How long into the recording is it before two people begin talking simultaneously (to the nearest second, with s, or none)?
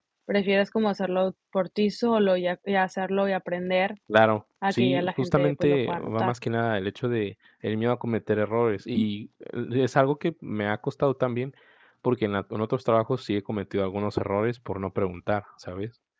5 s